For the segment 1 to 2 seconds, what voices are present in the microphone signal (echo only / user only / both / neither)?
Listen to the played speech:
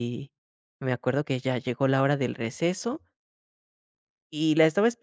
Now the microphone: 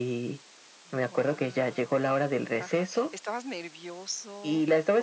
both